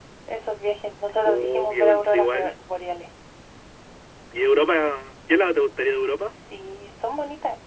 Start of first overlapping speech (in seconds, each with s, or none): 1.2 s